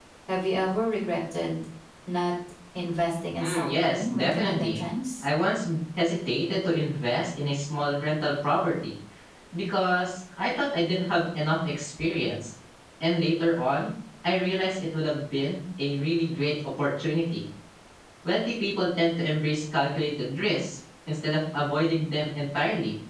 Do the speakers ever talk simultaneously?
Yes, from 3.4 s

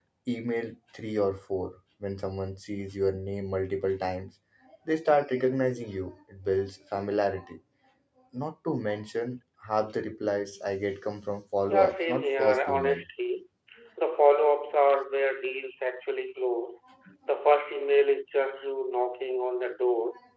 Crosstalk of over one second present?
Yes, from 11.7 s

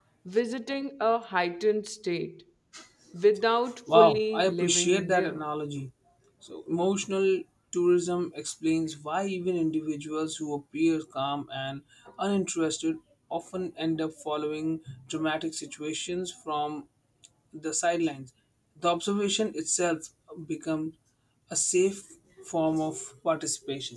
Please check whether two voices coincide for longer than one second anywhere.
Yes, from 3.9 s

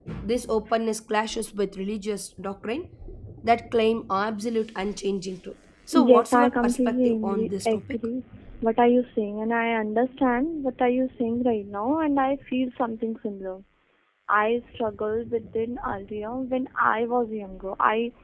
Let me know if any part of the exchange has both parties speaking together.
Yes, from 5.9 s

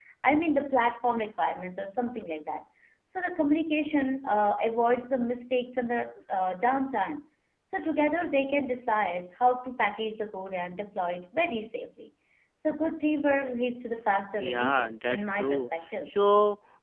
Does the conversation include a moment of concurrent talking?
Yes, from 14.4 s

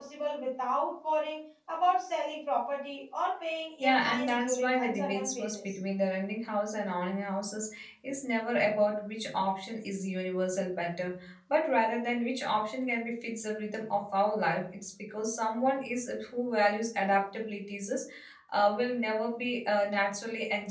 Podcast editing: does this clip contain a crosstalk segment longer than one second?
Yes, from 3.8 s

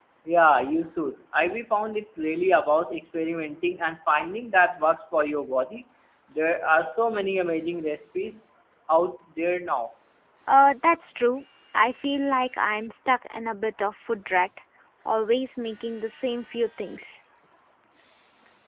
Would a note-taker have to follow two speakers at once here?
No

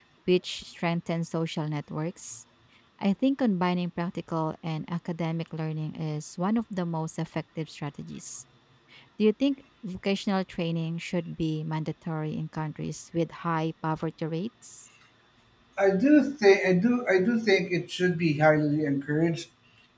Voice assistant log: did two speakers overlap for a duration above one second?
No

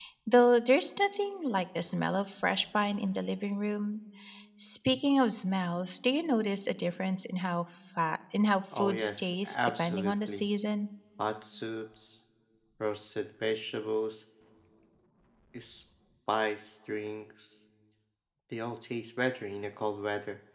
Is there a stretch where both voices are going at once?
Yes, from 8.7 s

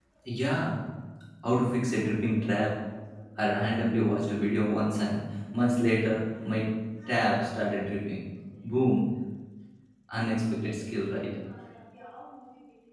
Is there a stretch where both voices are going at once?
No

